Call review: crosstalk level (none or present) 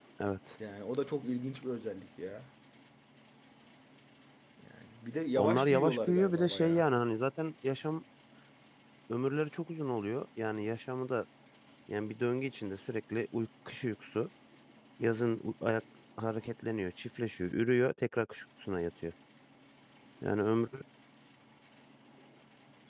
present